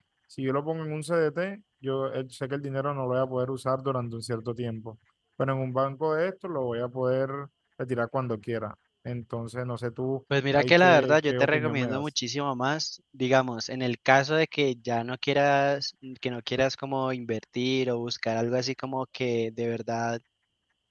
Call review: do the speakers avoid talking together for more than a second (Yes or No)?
No